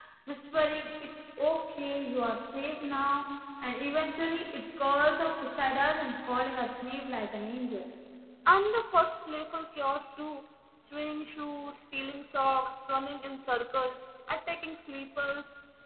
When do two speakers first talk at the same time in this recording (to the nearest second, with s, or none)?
none